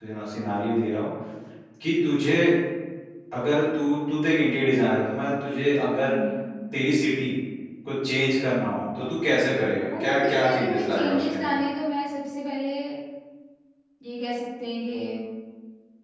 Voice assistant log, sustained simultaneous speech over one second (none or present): present